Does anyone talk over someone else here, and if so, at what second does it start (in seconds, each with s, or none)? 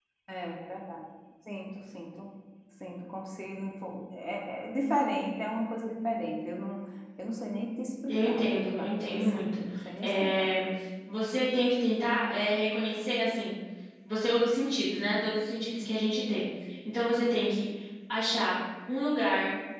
8.1 s